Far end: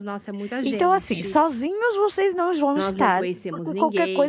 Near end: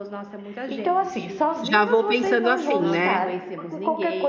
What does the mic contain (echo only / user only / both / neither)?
both